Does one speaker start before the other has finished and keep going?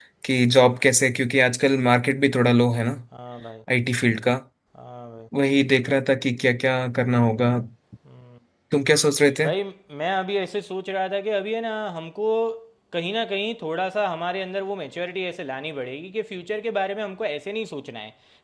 No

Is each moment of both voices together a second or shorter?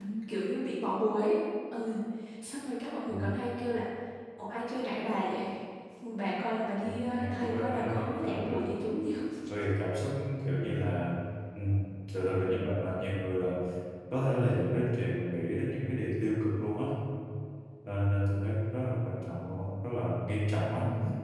No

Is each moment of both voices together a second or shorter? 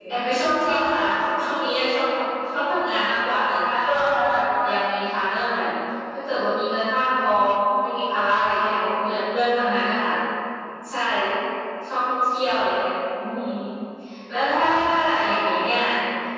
Yes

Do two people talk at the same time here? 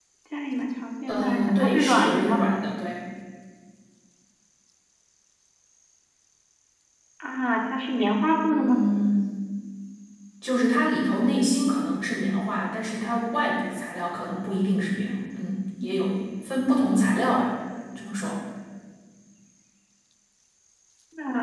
Yes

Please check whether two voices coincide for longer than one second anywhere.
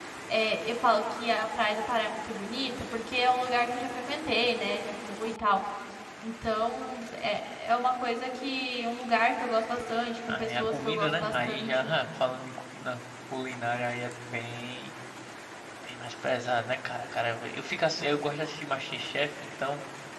Yes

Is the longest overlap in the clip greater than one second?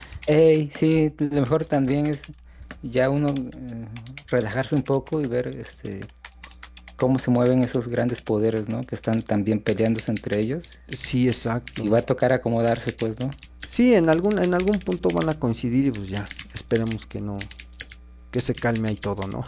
No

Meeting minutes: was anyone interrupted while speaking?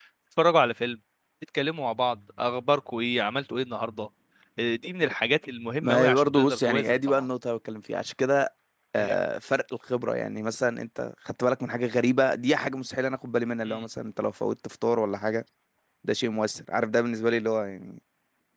Yes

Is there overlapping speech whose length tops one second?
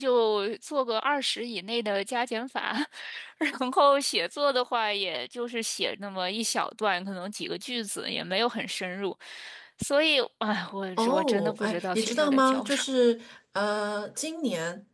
Yes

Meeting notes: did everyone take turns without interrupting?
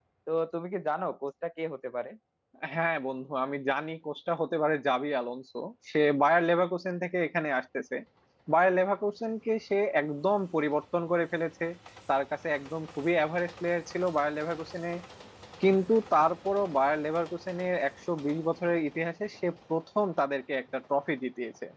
Yes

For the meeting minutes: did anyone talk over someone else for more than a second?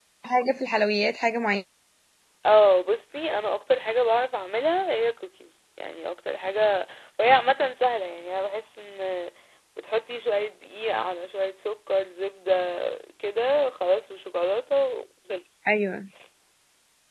No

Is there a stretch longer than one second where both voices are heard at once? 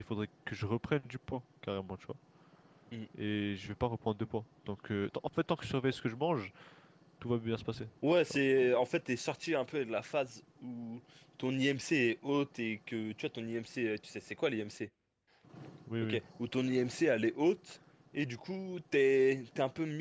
No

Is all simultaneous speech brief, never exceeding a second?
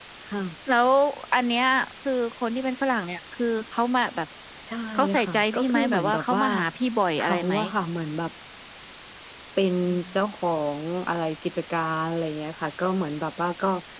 No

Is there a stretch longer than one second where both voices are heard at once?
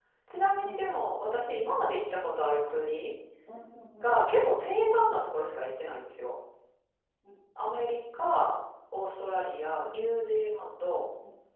No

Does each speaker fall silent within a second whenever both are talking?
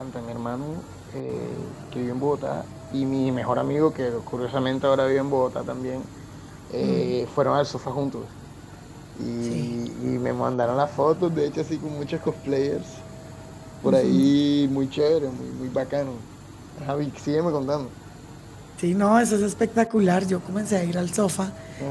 Yes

